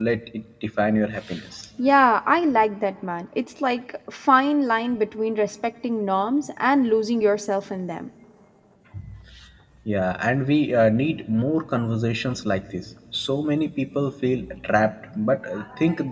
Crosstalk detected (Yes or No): No